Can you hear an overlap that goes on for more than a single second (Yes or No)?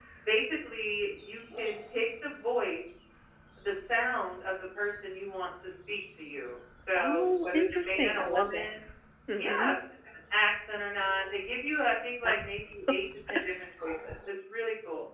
Yes